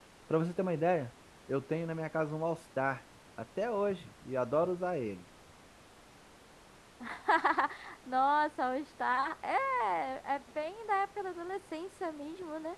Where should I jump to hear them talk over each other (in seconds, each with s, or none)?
none